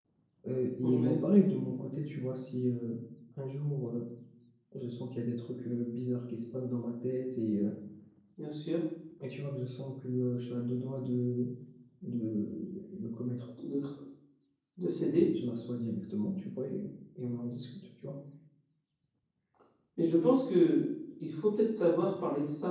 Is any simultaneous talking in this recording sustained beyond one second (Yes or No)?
No